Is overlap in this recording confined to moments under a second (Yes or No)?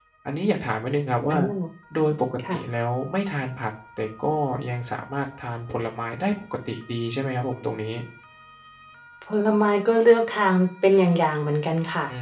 Yes